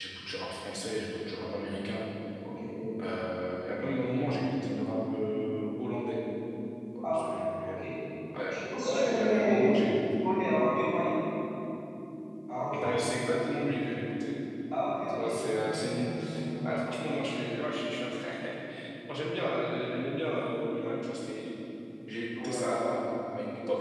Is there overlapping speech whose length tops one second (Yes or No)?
Yes